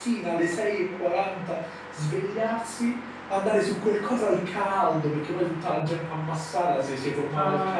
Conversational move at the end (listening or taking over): taking over